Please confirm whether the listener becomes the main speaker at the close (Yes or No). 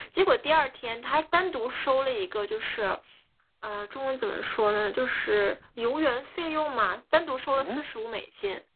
No